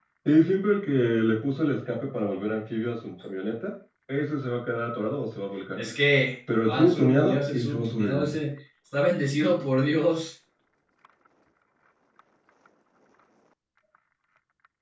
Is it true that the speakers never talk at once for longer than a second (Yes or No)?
No